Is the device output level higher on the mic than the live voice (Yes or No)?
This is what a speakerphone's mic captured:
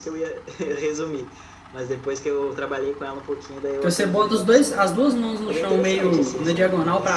No